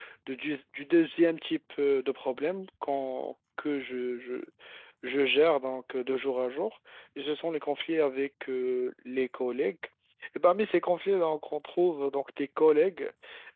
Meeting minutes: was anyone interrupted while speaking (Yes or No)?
No